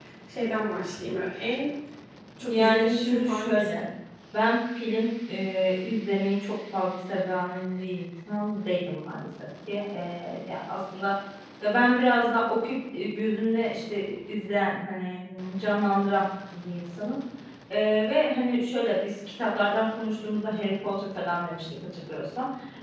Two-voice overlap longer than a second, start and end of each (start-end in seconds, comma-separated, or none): 2.4-3.8